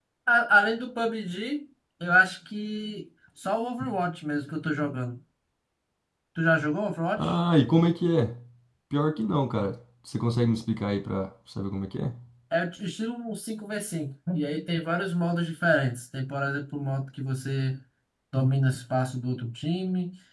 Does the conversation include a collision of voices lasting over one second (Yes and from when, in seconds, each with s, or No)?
No